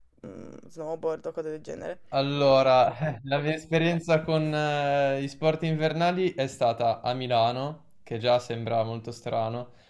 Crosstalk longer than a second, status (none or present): none